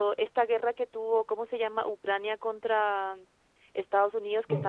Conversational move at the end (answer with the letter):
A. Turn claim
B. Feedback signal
B